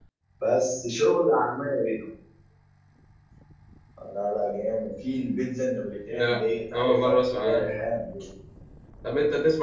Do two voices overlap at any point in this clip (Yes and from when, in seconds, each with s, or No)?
Yes, from 6.1 s